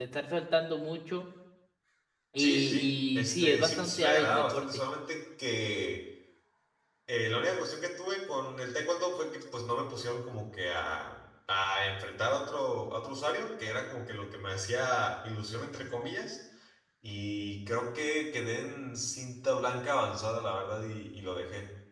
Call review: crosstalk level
present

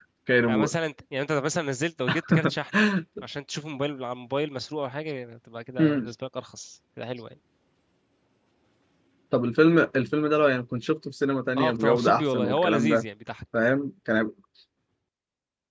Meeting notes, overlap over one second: present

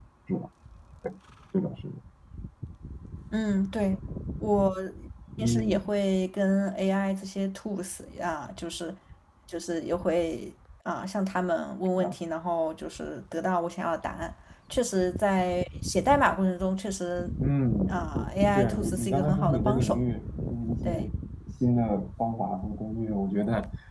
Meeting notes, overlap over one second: present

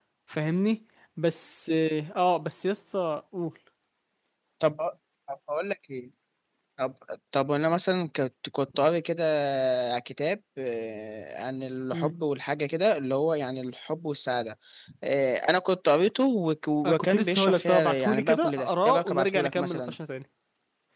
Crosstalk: present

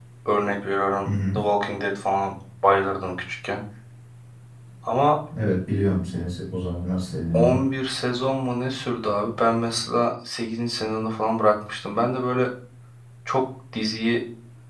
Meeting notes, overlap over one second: none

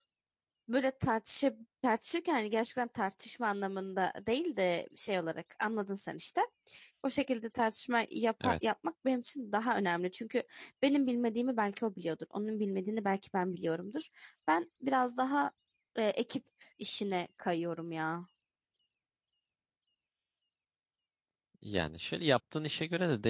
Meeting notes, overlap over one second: none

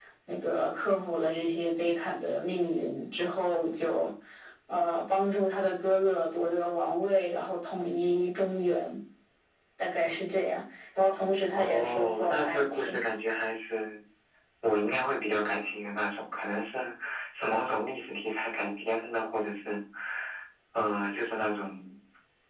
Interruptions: present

